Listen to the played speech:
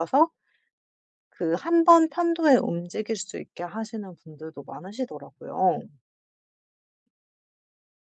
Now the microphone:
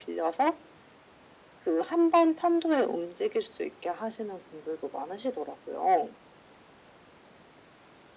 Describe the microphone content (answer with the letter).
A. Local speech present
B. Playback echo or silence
B